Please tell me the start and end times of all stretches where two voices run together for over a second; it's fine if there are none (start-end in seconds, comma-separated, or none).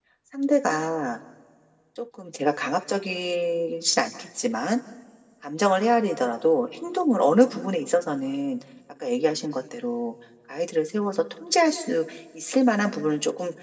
none